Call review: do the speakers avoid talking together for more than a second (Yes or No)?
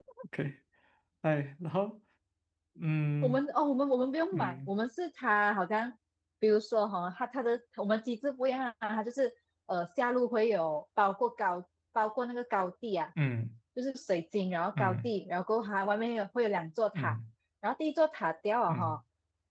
Yes